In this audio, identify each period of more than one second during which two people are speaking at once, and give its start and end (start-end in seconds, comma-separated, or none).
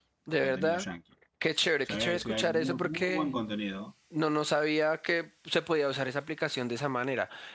1.9-3.3